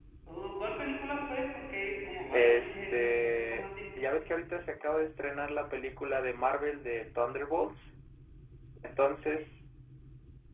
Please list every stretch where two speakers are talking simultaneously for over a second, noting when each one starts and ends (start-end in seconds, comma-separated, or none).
2.3-3.7